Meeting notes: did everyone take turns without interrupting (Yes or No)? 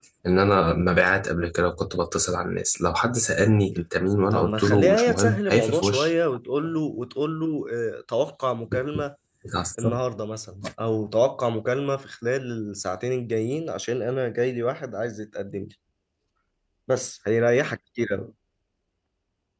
No